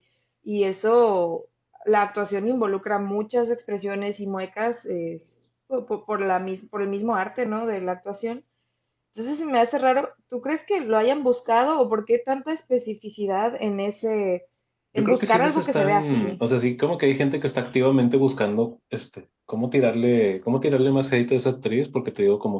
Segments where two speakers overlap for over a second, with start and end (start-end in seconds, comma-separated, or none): 15.0-16.4